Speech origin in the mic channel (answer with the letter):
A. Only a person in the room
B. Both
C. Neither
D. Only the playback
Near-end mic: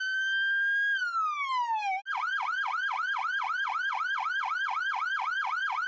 C